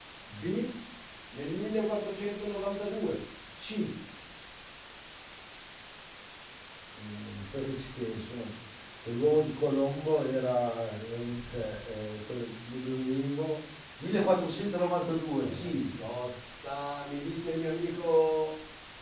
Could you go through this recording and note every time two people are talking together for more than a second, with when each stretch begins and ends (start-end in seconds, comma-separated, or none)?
none